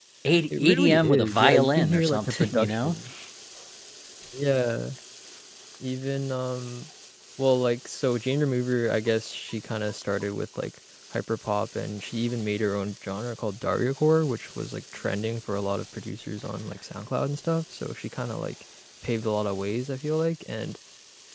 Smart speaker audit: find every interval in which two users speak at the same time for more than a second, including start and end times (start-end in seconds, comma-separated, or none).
0.6-3.0